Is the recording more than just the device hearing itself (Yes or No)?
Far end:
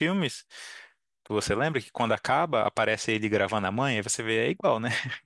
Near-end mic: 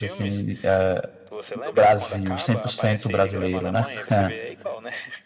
Yes